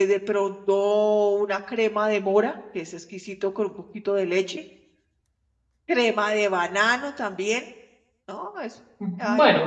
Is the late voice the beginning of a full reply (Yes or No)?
Yes